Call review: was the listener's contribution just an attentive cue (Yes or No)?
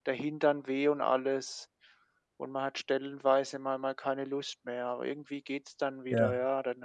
Yes